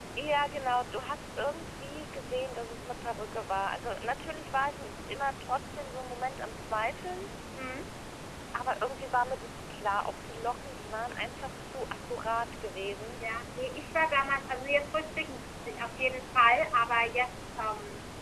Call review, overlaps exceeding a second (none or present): none